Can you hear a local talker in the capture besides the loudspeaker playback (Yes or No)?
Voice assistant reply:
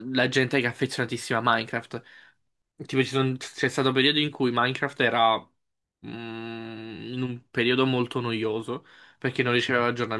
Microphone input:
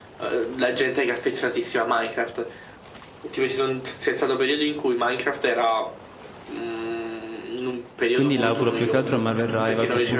Yes